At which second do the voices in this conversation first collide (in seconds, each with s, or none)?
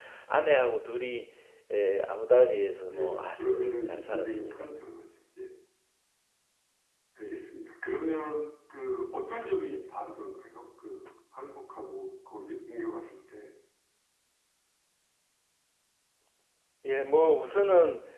2.9 s